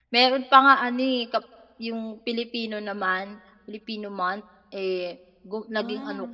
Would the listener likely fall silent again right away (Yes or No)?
Yes